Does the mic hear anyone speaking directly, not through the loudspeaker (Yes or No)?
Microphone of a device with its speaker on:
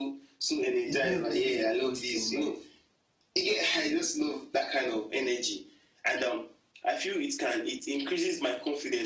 Yes